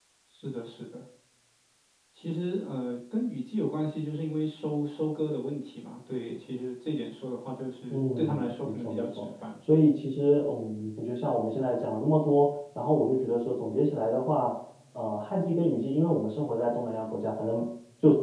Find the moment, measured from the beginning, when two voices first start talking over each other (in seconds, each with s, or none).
7.9 s